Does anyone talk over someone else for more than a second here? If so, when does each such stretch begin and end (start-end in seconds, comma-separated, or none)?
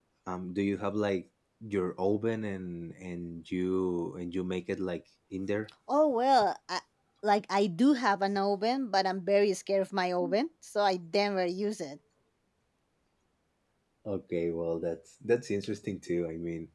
none